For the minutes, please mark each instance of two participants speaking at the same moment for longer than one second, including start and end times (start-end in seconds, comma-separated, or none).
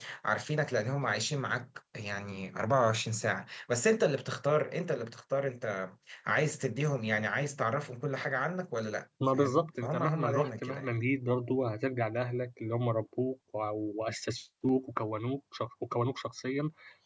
9.3-11.0